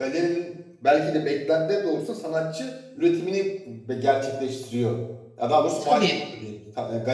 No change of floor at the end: Yes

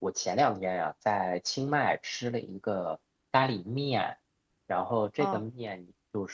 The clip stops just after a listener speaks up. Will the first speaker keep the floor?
Yes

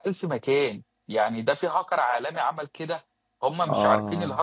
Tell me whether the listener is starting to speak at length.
No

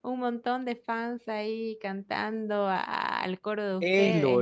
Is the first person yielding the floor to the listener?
Yes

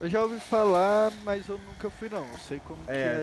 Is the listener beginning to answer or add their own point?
Yes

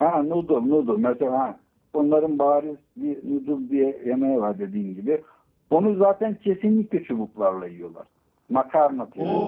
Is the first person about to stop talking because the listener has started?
Yes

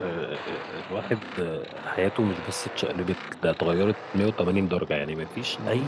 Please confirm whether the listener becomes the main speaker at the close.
No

